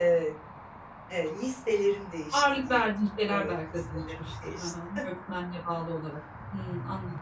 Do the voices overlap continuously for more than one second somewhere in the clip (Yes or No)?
Yes